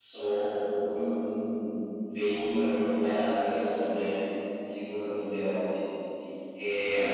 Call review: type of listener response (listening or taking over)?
taking over